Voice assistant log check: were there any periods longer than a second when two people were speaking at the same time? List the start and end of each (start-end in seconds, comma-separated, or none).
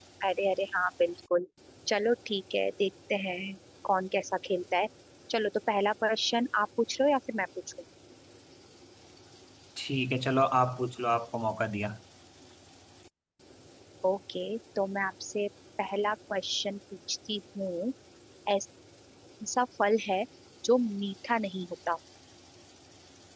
none